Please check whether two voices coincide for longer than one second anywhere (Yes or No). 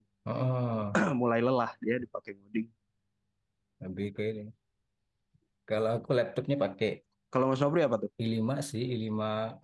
No